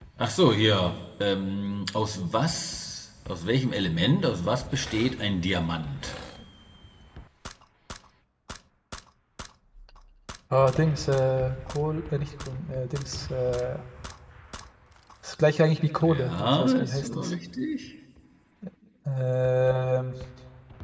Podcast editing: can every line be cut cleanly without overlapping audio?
No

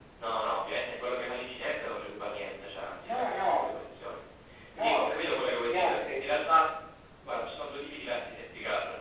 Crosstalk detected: Yes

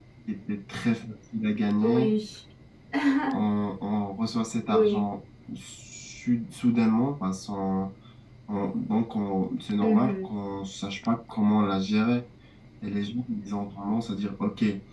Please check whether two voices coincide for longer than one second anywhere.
No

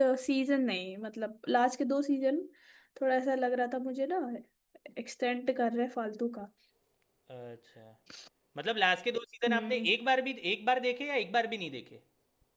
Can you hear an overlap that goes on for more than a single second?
No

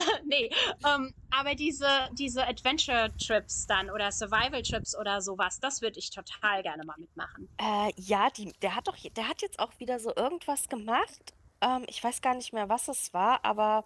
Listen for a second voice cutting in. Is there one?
No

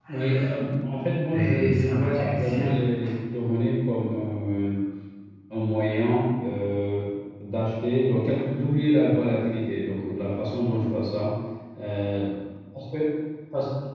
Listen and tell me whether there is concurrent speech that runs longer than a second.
Yes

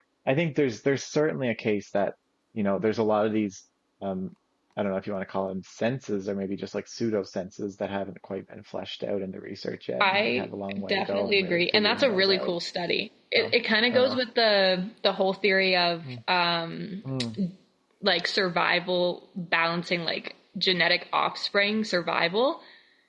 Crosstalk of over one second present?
Yes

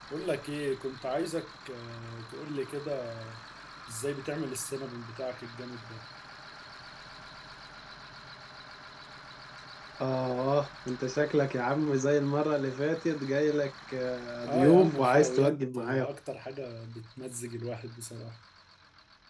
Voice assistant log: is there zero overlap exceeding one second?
No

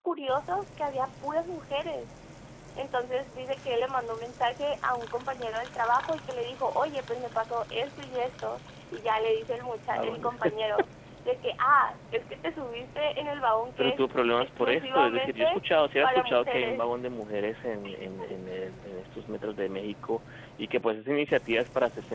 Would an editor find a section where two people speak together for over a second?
Yes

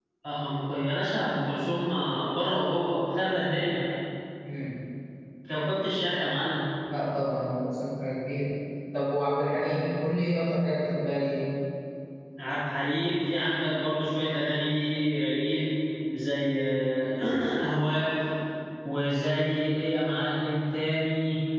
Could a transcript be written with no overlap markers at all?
Yes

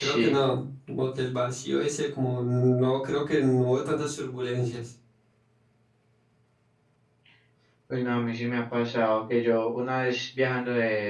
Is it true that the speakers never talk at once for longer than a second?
Yes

